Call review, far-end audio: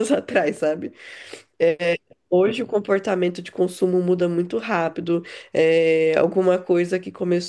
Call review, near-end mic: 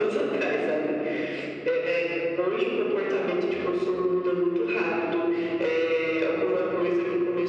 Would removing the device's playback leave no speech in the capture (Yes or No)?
Yes